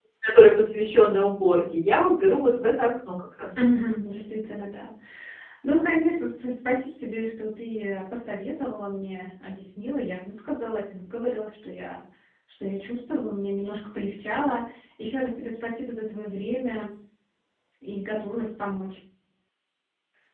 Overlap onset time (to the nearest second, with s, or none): none